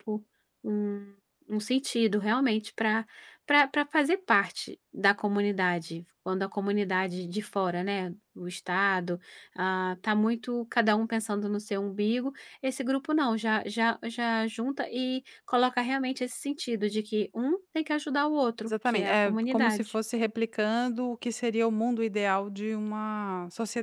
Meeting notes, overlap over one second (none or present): present